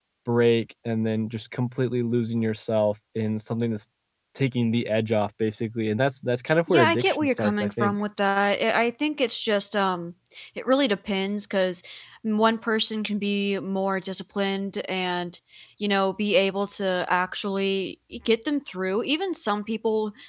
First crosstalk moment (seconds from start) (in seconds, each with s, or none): 6.5 s